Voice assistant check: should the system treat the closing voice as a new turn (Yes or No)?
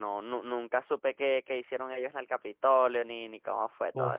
Yes